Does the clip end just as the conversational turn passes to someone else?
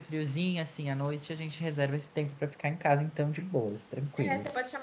Yes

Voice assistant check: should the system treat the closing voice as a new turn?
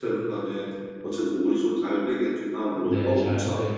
Yes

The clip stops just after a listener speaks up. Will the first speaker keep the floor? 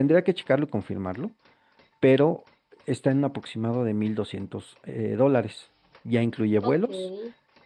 Yes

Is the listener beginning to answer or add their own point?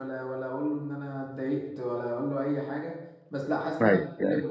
No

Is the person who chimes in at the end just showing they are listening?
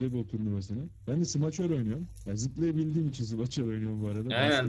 No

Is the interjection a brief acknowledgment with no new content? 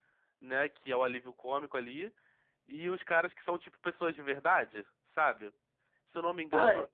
Yes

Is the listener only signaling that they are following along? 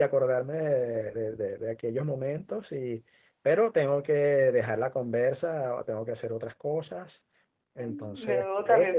No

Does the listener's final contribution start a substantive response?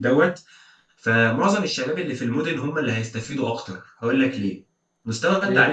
No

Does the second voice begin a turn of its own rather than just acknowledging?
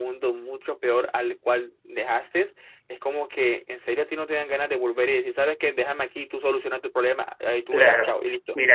Yes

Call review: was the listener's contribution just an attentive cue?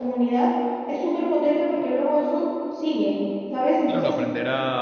No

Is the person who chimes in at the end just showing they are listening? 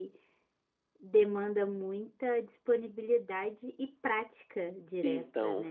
No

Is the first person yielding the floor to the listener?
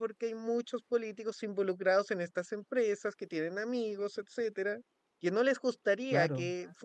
No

